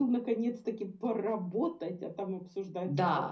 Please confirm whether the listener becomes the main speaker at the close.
Yes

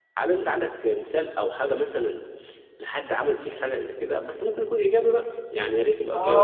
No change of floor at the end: No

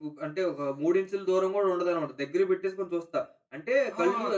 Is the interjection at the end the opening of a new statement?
Yes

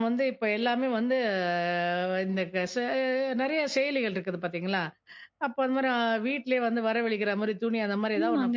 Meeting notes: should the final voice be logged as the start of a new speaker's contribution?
Yes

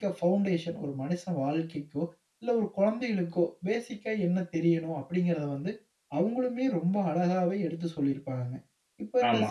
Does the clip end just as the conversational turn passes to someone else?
No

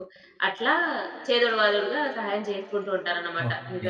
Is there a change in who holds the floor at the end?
Yes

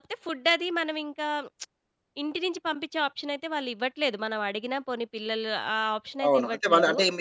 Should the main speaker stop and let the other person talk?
Yes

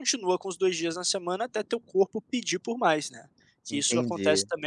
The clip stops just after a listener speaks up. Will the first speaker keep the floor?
No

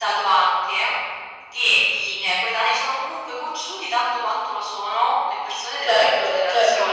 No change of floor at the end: No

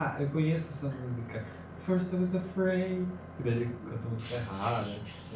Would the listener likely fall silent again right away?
No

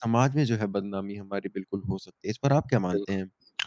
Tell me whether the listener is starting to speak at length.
Yes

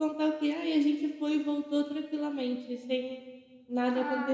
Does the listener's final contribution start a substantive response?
Yes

